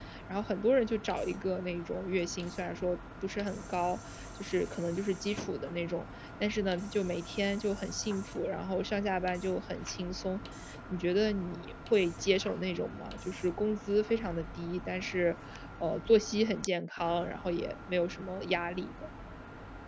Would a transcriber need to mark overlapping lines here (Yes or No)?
No